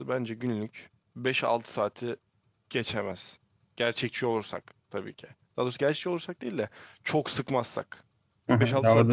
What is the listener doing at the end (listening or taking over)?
taking over